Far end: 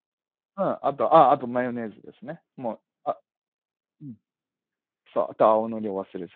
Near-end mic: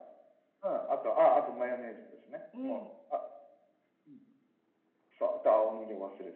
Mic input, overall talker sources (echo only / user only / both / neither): both